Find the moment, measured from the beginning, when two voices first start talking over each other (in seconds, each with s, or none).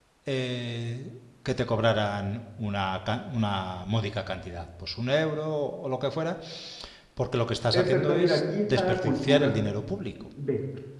7.7 s